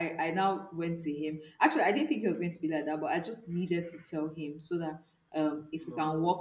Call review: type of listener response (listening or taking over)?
listening